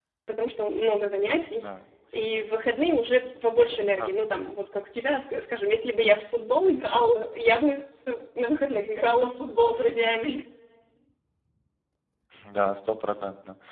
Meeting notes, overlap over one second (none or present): none